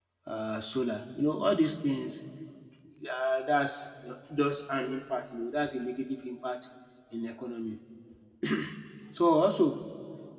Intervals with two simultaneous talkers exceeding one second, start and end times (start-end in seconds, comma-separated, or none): none